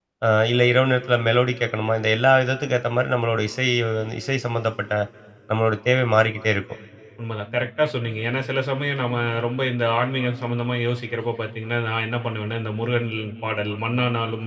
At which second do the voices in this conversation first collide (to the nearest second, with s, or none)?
none